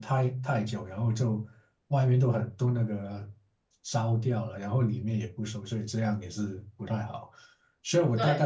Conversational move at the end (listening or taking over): listening